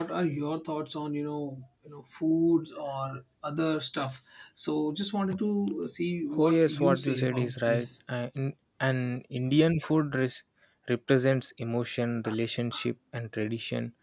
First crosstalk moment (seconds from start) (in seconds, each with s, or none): 6.3 s